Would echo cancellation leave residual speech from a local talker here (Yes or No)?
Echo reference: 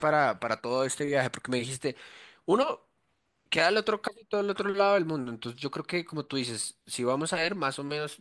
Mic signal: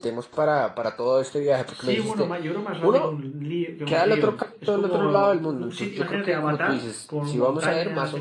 Yes